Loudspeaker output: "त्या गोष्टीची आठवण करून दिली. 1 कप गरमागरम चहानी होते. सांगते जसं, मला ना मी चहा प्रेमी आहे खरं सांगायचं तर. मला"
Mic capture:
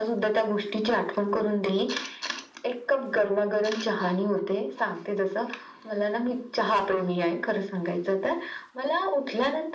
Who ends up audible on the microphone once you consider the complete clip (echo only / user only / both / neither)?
echo only